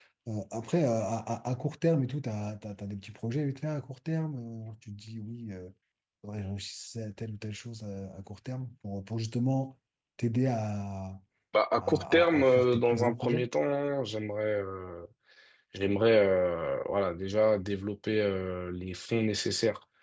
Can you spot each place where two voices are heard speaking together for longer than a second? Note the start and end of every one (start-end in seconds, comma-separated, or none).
11.8-13.5